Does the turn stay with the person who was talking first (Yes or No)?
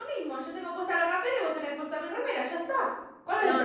No